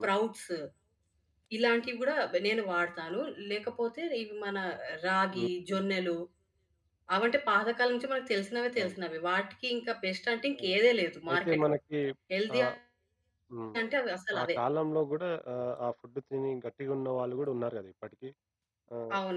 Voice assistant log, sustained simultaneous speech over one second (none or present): none